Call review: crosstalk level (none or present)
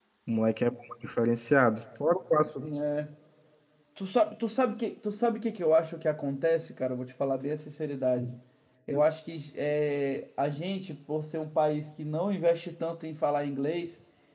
none